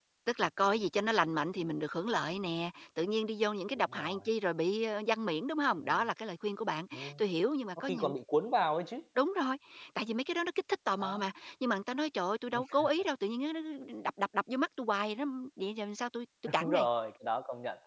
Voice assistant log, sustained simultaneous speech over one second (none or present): none